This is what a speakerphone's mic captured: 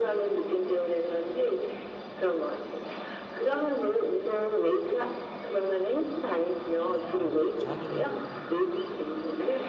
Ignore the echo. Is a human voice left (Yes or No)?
Yes